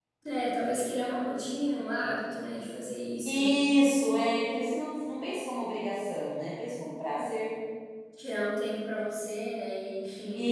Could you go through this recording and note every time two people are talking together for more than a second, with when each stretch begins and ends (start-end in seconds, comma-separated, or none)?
none